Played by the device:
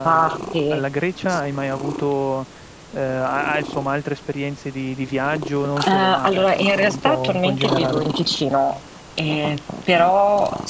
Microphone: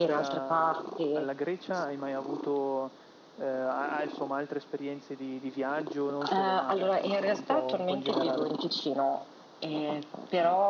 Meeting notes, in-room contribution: none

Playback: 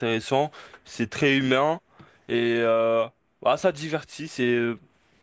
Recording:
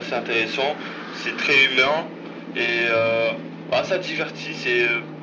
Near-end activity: none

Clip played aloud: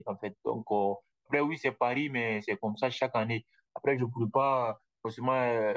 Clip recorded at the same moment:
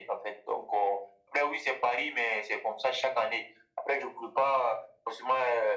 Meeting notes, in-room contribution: none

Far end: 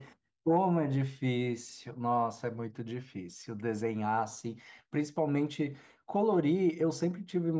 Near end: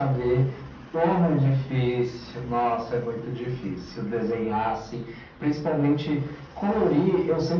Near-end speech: none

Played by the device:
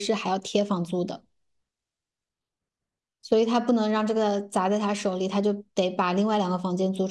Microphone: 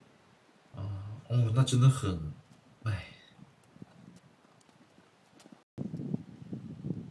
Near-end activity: present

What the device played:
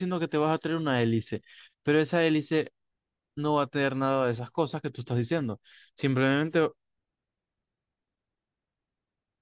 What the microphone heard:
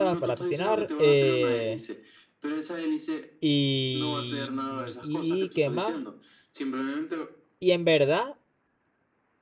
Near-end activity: present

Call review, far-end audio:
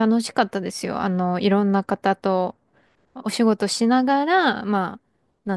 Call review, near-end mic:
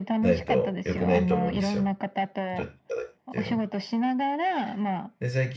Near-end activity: present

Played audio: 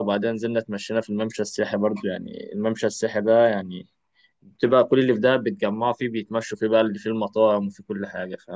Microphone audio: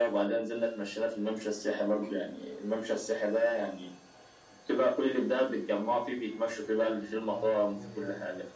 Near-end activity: present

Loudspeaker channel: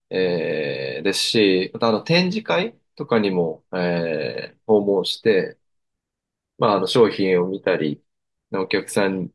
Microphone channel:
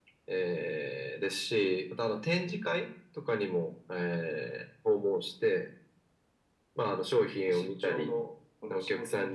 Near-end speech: present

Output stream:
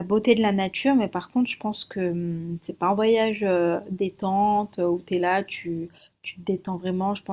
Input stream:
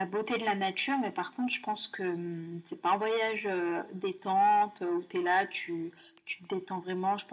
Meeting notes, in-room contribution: none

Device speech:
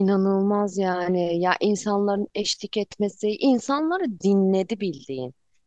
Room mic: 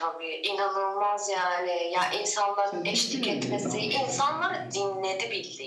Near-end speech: present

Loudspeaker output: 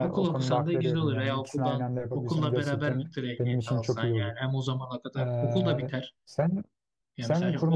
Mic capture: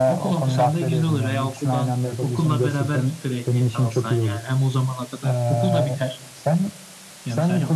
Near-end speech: none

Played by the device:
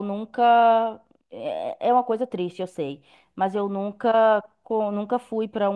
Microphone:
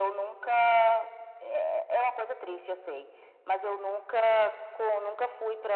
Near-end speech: none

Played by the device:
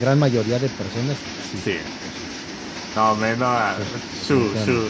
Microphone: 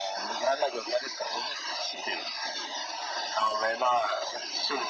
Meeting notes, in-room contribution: none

